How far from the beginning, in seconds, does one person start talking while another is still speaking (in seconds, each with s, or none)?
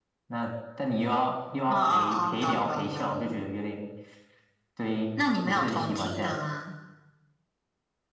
1.7 s